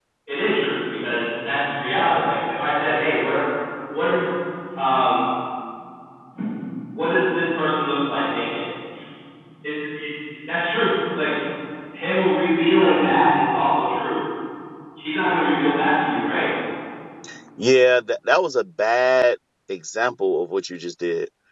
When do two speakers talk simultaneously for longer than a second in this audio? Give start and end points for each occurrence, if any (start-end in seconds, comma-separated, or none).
none